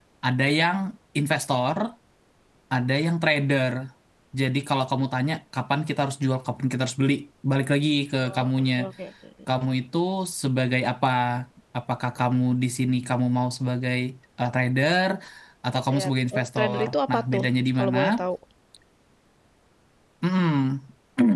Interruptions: present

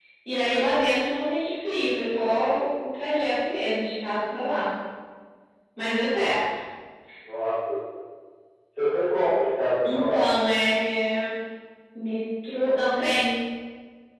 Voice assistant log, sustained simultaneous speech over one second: none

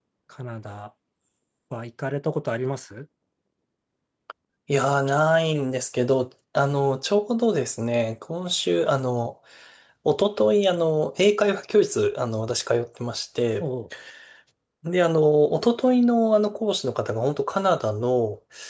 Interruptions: none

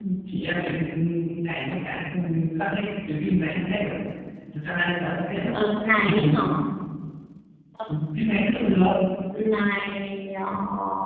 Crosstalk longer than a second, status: none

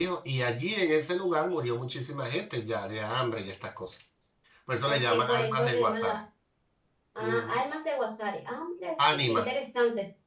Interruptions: present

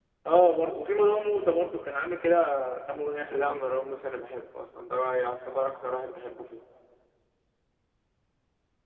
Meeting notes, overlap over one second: none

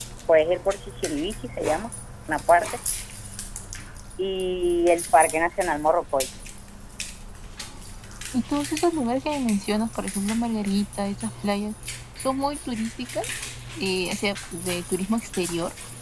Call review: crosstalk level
none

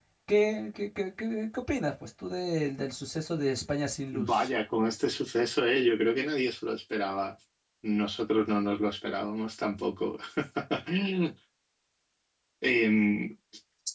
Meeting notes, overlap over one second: none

